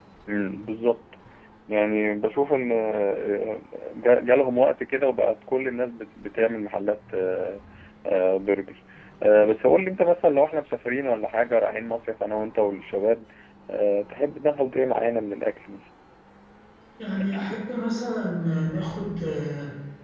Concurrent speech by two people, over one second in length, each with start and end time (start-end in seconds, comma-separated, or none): none